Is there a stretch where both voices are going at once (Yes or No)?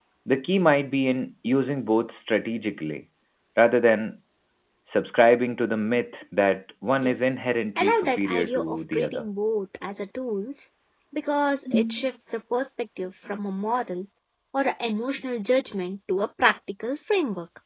Yes